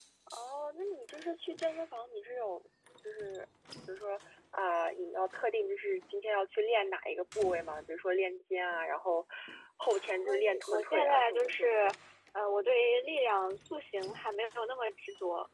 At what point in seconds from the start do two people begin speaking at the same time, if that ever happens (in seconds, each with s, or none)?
10.2 s